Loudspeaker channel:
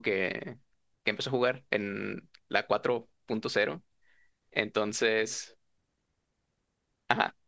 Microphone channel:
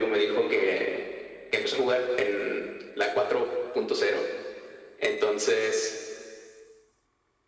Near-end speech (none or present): none